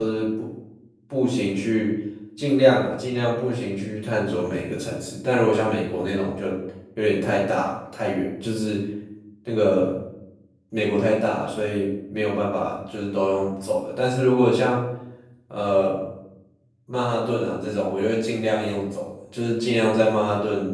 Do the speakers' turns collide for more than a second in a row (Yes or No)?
No